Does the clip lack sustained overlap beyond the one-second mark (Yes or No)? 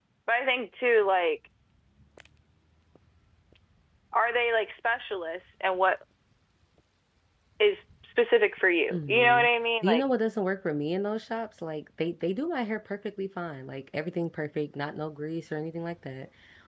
Yes